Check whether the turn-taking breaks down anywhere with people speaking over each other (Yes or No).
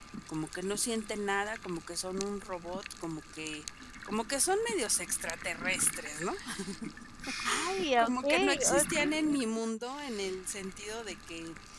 Yes